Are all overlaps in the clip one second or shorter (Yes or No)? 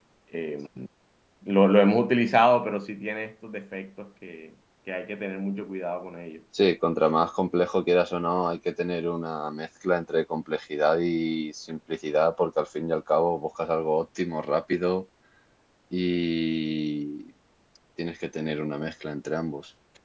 Yes